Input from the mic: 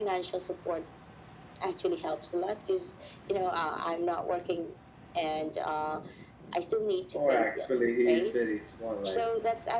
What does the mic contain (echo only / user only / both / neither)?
both